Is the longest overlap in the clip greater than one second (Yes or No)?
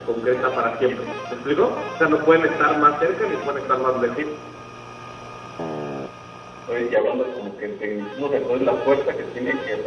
No